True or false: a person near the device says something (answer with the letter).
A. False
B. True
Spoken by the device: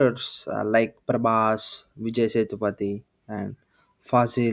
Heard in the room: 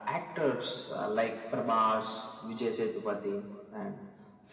A